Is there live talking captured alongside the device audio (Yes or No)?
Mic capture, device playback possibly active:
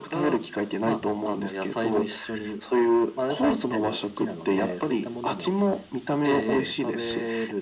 No